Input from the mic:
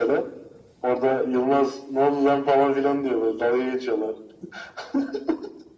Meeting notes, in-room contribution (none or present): none